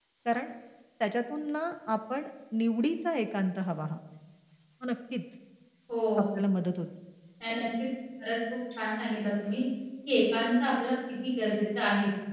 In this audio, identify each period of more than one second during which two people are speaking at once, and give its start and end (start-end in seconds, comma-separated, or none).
none